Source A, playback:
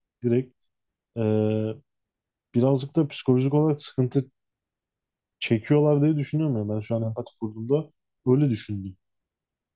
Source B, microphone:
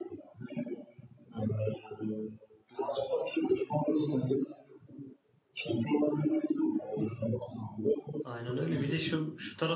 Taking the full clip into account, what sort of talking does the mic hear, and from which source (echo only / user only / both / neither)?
both